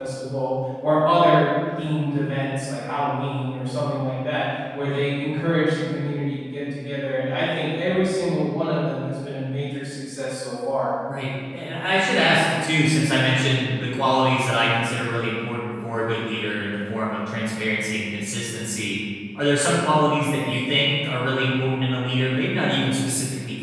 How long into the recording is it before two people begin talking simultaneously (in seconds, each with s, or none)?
none